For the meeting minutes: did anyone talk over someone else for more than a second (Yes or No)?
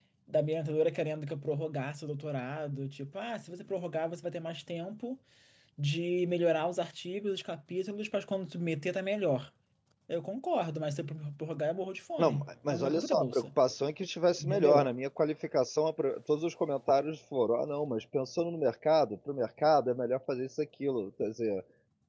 Yes